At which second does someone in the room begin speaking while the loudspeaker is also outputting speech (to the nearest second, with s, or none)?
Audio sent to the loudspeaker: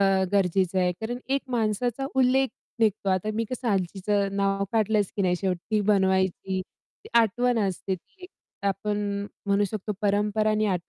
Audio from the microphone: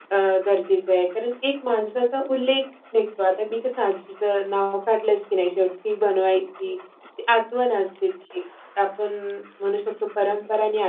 none